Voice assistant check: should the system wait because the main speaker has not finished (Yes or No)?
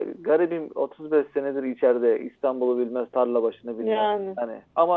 Yes